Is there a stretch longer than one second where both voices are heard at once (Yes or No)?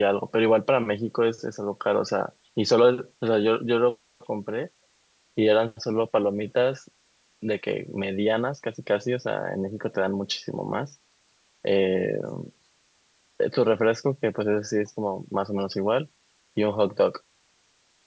No